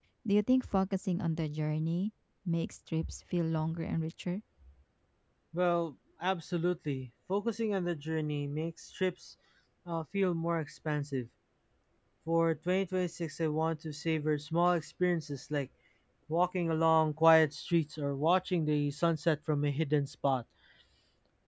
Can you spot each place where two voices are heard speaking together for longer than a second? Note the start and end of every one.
none

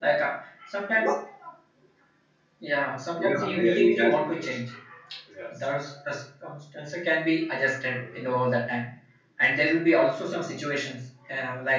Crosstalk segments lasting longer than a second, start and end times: 3.2-4.6

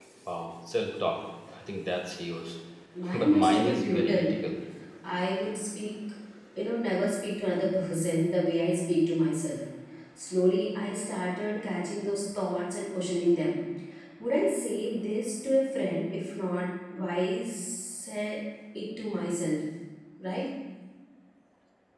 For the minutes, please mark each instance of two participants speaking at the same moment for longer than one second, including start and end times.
3.1-4.3

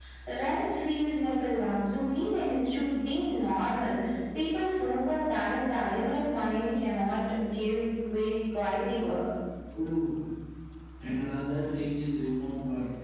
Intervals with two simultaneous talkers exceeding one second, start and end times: none

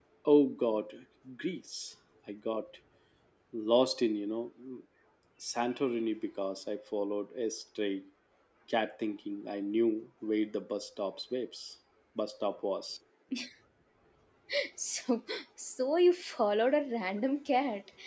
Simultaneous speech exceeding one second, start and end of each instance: none

